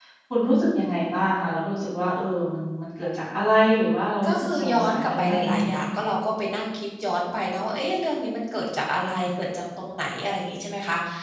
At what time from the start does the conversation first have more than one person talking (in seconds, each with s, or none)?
4.2 s